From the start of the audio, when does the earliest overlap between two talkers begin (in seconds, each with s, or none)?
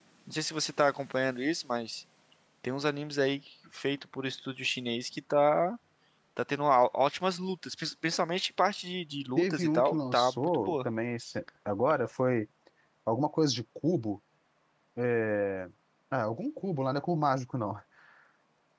9.4 s